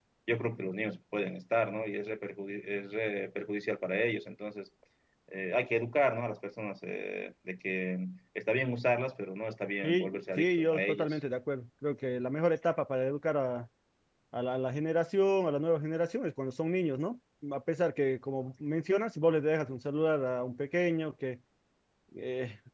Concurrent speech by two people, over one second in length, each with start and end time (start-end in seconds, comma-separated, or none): 9.8-11.2